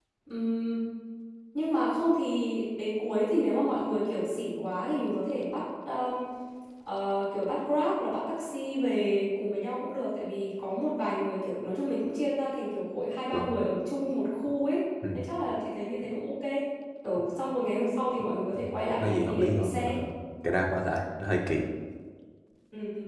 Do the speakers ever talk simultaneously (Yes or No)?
Yes